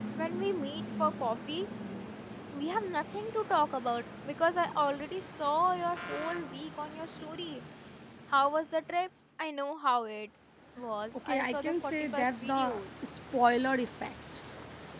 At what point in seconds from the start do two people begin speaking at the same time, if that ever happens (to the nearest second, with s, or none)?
11 s